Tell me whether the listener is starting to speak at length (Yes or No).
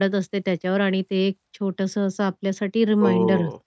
Yes